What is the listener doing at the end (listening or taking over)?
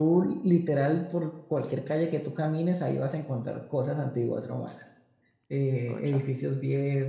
listening